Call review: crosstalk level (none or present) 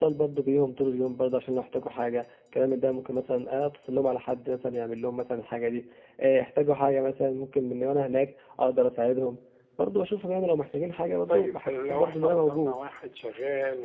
present